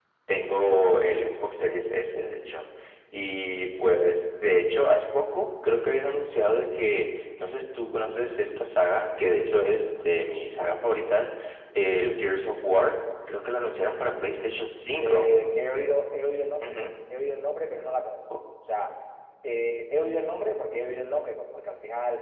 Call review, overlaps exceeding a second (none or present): none